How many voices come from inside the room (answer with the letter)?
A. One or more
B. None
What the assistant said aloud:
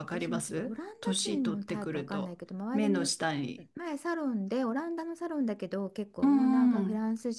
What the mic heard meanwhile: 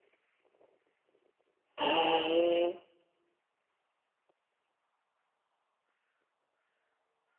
A